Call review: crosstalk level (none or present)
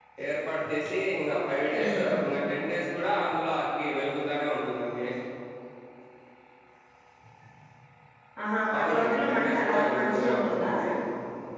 present